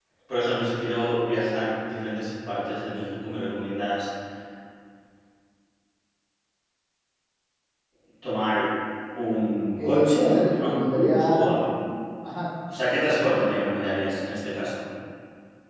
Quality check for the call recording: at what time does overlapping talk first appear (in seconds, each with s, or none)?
9.8 s